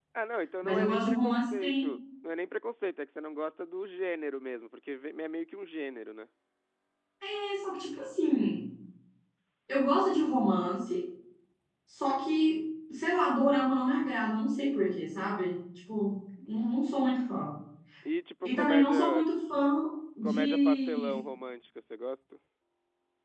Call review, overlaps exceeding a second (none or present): present